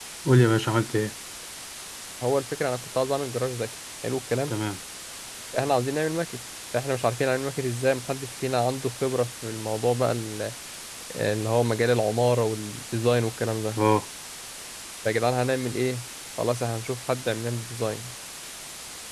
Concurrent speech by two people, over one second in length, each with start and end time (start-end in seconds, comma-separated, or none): none